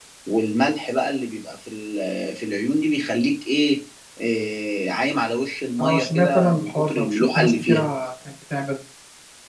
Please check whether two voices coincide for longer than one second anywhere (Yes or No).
Yes